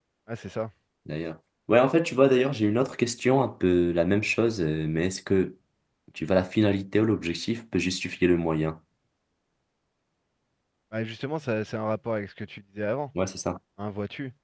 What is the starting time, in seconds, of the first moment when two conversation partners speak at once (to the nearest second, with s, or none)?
none